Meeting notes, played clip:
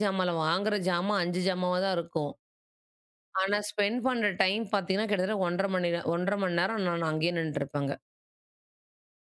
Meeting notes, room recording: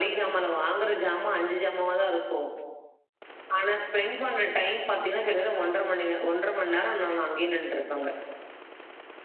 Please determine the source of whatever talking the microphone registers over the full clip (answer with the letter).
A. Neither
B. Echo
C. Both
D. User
B